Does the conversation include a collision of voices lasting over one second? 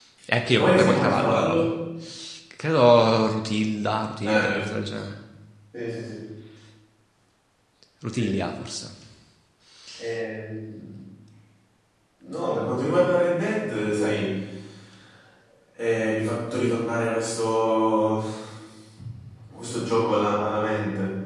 Yes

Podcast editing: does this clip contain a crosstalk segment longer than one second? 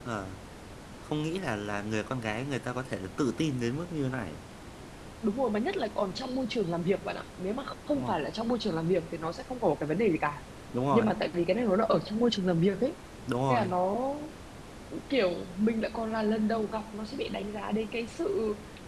No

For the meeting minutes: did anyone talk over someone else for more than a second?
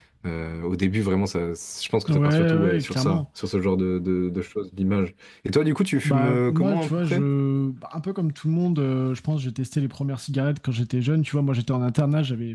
Yes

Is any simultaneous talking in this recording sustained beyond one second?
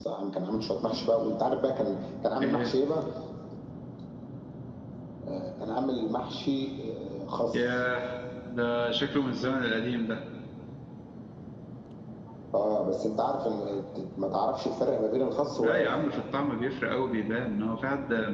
No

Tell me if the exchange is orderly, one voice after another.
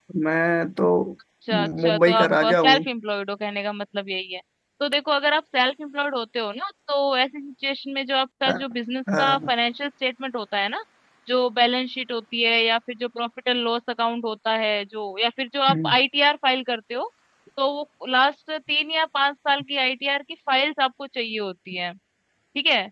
No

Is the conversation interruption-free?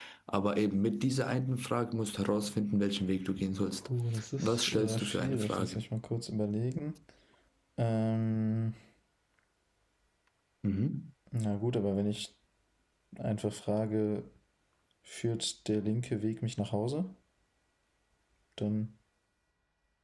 No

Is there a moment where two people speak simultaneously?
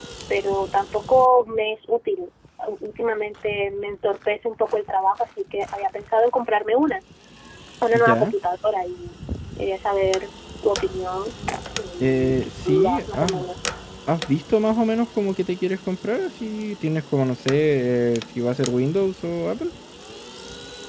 Yes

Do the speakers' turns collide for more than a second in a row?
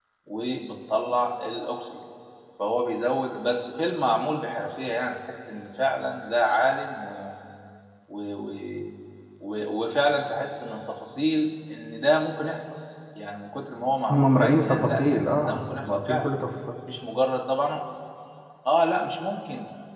Yes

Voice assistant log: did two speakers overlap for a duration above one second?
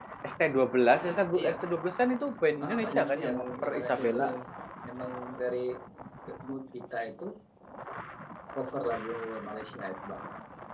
Yes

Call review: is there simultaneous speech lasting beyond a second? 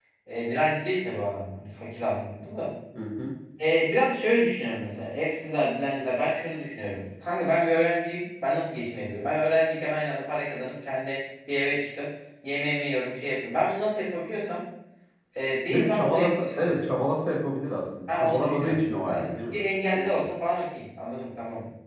Yes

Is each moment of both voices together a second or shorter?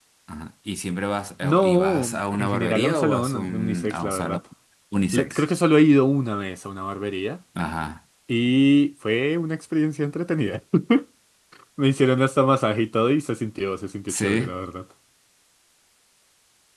No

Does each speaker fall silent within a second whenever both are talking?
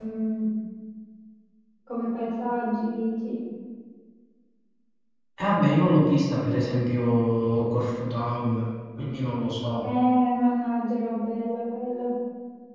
Yes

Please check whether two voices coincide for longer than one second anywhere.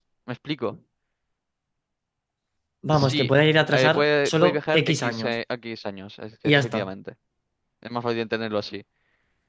Yes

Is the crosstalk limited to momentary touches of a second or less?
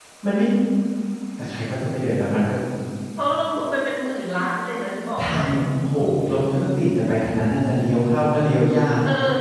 Yes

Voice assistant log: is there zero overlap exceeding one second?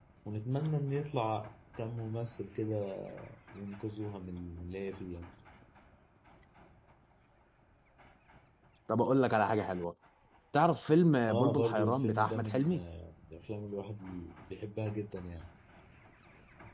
No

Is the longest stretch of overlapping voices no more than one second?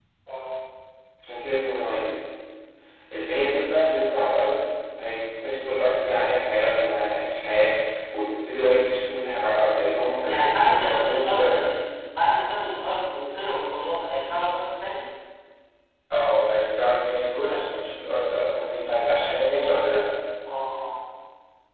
No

